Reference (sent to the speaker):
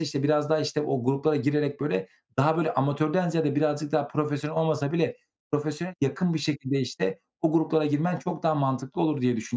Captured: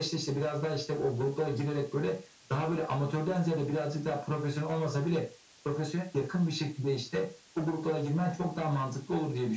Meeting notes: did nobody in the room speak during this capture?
Yes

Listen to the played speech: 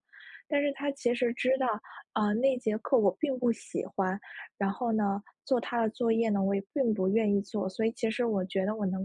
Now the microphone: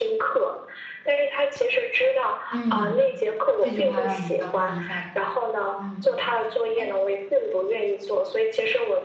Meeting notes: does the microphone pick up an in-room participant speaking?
Yes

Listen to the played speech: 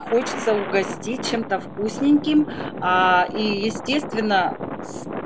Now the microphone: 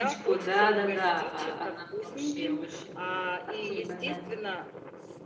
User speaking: Yes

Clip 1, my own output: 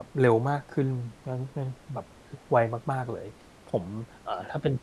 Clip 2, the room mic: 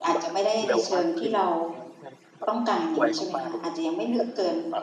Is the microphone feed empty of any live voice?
No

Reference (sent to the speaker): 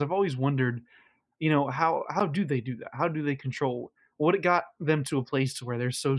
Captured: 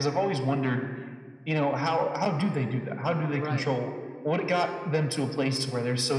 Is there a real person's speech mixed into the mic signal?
Yes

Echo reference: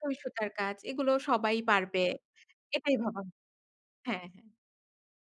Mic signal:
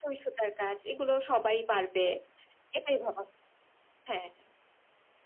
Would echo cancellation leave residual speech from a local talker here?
No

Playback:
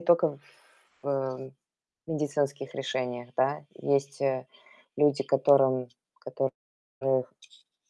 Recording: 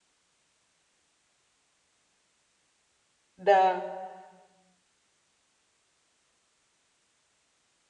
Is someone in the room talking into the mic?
Yes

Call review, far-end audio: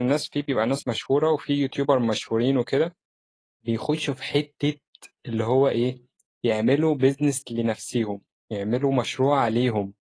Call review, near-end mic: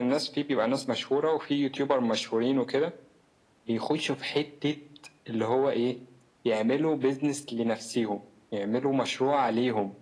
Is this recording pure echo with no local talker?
Yes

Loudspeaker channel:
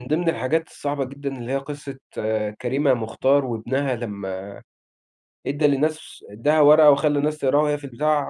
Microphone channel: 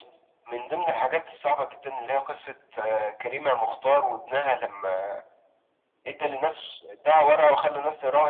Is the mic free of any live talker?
Yes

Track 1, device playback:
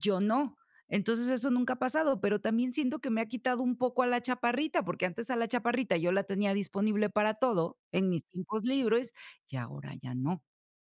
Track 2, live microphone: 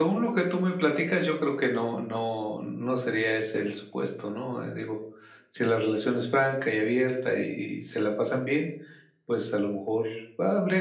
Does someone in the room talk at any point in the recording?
Yes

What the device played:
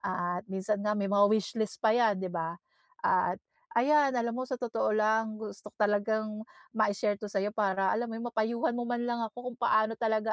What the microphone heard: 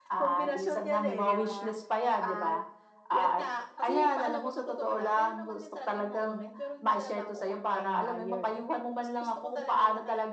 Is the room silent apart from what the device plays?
No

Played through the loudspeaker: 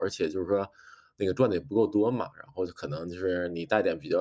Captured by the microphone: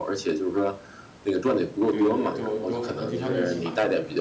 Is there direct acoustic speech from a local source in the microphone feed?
Yes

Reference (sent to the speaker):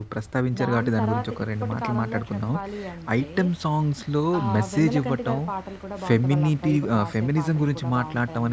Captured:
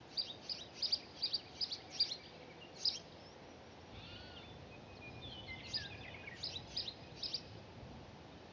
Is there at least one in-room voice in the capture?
No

